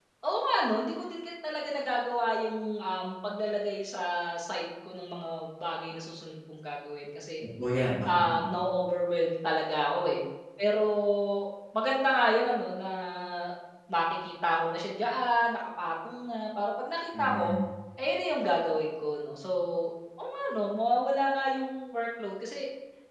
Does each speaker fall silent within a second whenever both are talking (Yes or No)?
Yes